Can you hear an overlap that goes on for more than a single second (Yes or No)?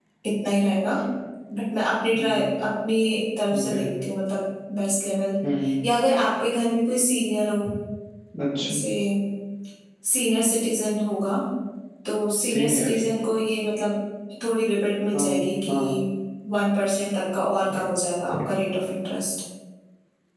No